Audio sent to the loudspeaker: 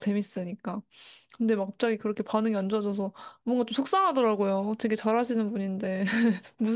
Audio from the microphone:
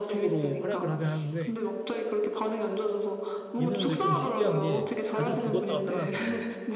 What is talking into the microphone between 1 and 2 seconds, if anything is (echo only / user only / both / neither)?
both